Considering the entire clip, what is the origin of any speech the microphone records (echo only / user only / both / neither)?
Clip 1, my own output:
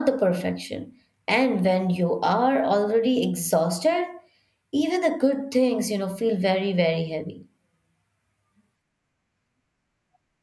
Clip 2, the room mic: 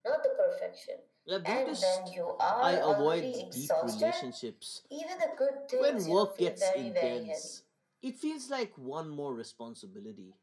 both